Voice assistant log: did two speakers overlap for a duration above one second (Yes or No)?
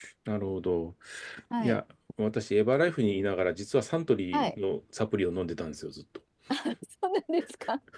No